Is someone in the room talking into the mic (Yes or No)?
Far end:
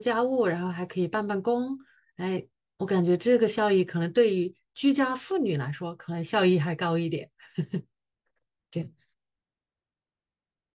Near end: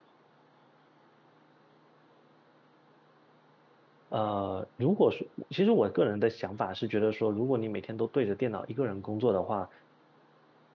Yes